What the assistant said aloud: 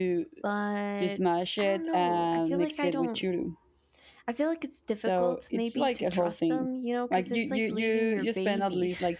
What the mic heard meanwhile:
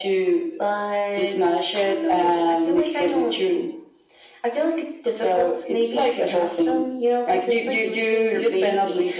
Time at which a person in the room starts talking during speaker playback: none

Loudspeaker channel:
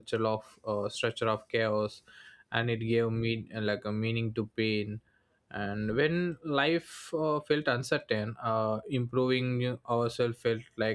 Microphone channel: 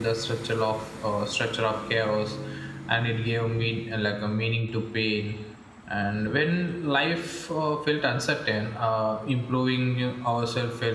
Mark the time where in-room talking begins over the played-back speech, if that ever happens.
none

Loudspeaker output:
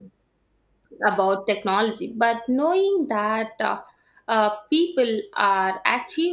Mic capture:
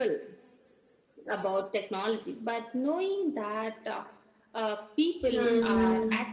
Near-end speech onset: 5.3 s

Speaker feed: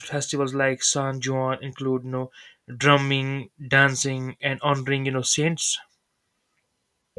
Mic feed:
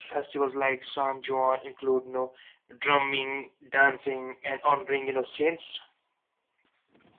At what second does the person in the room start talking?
none

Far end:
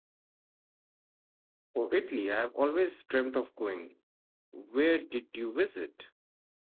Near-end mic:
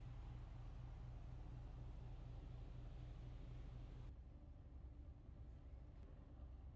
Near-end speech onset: none

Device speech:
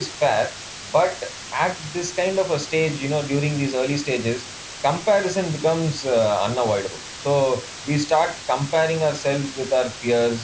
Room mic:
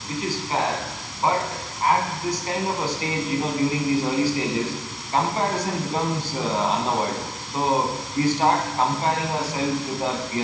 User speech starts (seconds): none

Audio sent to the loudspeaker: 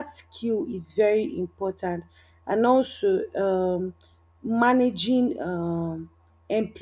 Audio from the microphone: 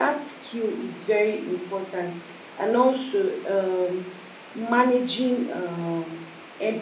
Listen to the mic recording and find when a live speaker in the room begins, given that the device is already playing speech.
none

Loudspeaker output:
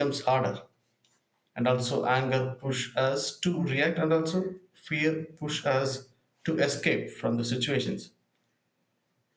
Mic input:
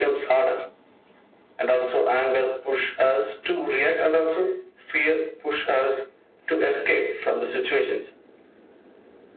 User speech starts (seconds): none

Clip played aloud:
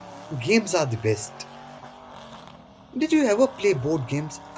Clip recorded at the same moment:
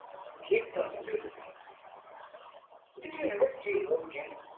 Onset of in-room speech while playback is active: none

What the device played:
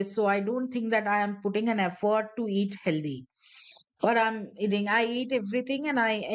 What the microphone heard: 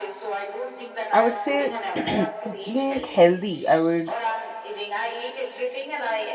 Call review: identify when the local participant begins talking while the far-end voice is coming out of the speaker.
1.1 s

